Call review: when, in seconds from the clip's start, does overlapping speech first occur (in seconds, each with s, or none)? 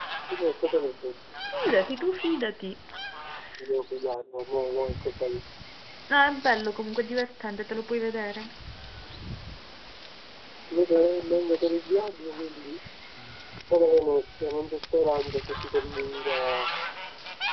none